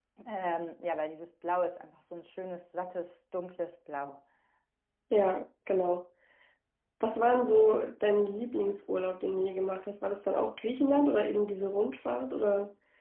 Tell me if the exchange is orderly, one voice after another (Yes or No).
Yes